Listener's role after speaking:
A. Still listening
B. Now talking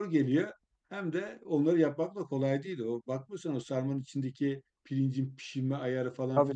A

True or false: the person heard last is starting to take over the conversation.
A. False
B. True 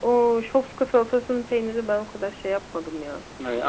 B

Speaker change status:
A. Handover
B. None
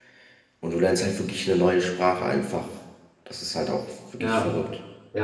A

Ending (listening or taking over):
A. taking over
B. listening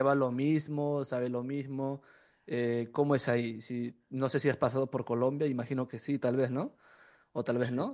B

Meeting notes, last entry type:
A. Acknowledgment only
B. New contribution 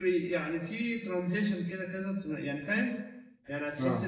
A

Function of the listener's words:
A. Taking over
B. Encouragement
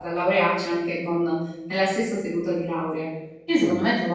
B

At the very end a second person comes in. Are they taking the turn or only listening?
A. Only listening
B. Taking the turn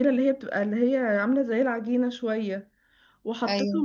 A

